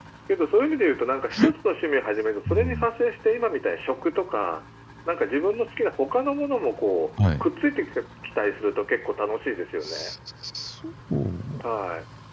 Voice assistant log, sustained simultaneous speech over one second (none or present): none